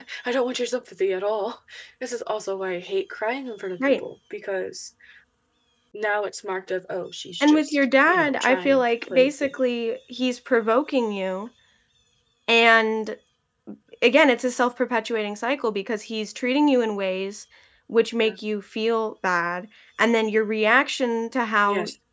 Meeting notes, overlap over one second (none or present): present